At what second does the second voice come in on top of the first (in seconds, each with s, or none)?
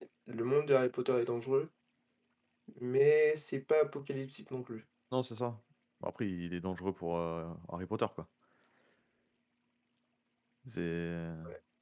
none